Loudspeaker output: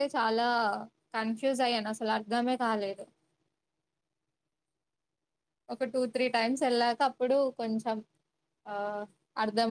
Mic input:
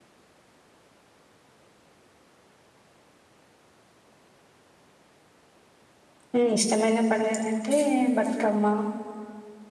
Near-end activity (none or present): present